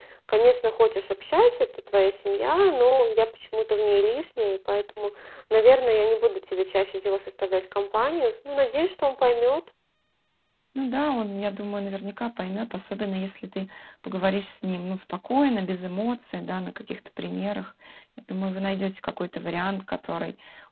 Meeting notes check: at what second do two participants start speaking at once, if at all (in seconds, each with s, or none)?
none